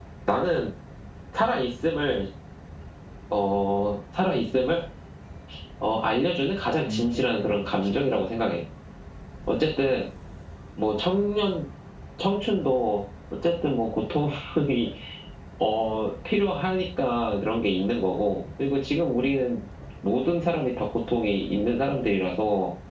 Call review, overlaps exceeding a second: present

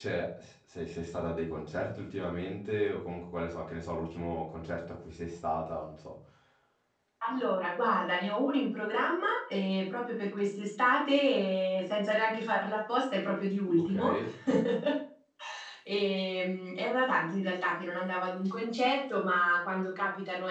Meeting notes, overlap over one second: none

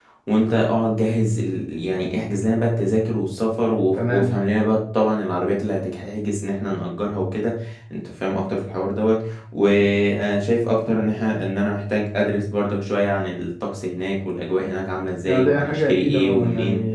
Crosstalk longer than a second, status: present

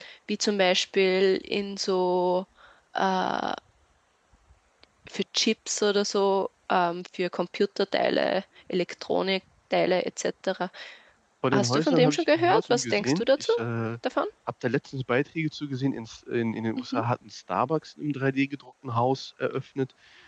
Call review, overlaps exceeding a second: present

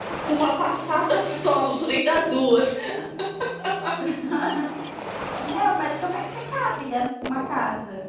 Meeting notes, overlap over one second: none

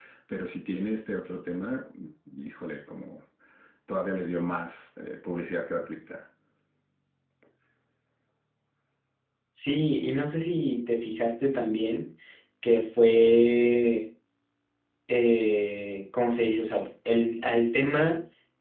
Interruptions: none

